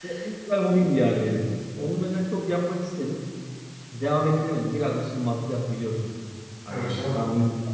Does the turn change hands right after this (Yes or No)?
No